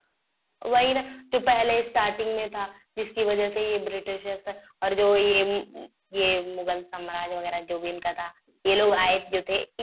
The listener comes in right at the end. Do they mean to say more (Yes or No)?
No